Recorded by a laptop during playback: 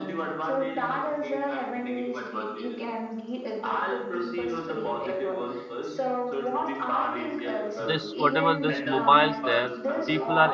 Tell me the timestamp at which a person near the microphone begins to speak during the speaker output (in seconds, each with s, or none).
7.8 s